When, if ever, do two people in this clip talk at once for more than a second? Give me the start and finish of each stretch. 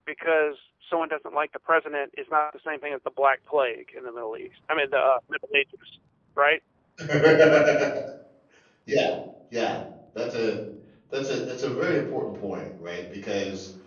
none

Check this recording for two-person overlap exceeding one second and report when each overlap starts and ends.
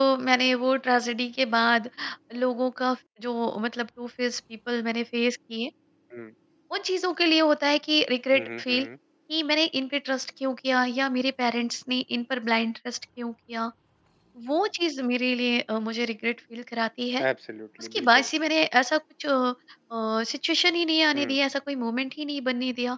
none

